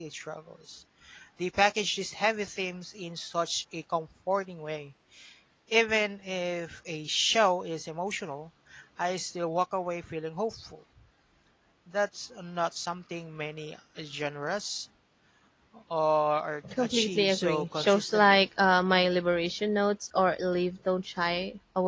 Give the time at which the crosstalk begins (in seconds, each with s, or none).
16.7 s